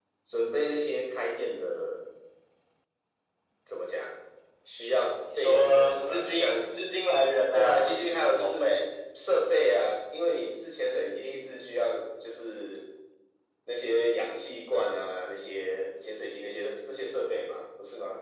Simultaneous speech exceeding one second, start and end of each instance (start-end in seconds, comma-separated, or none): 5.4-6.6, 7.5-8.8